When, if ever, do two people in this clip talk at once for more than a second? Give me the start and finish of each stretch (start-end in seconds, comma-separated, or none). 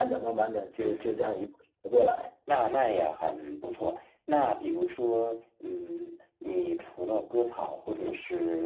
none